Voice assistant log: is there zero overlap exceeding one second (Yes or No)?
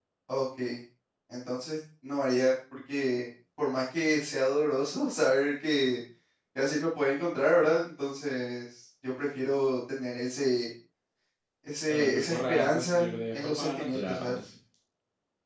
No